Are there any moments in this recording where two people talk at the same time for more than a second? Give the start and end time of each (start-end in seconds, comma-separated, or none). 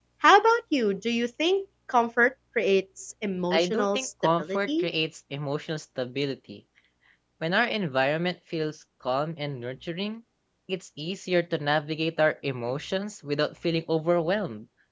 3.5-4.9